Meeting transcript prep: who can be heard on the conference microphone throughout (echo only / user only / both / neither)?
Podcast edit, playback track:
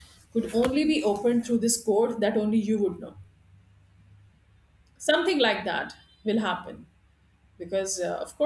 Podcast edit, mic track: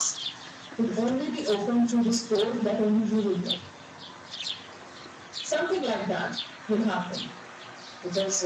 echo only